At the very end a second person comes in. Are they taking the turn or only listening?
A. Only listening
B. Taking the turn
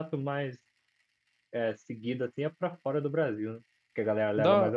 B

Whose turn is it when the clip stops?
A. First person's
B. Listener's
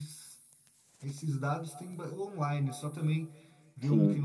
A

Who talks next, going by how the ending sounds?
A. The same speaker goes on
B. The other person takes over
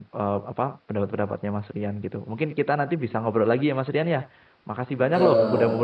A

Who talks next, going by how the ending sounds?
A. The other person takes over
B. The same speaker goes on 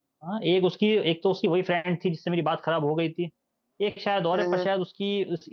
B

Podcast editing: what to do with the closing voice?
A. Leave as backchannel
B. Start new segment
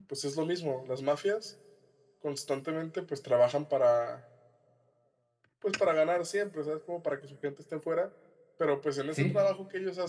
A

